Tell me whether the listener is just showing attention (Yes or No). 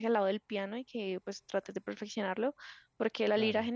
Yes